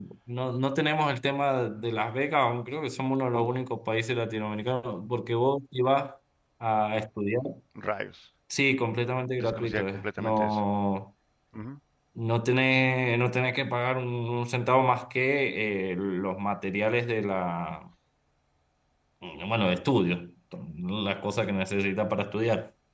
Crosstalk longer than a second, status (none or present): present